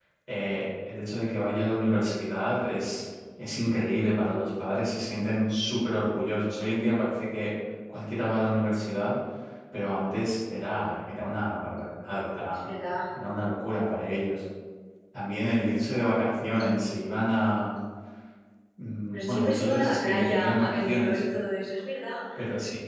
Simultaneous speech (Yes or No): Yes